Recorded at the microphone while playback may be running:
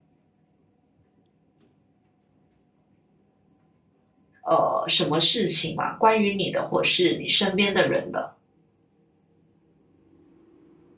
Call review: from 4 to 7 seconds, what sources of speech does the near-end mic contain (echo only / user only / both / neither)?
user only